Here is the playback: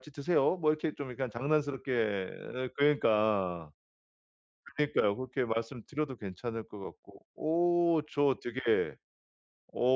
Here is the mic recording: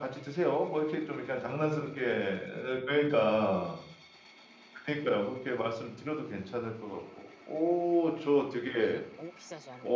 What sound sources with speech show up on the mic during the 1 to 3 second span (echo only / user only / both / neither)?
echo only